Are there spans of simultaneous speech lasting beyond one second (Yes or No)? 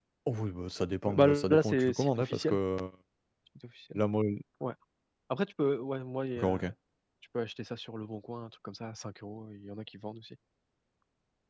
Yes